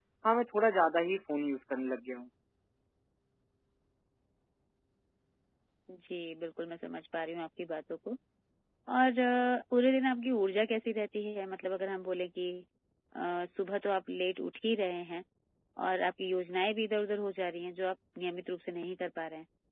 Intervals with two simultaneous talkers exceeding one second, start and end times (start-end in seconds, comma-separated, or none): none